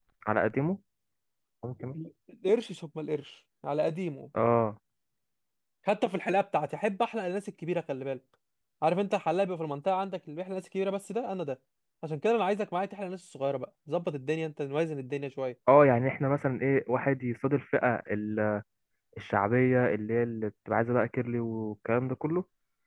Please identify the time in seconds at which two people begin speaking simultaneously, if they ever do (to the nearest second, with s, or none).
none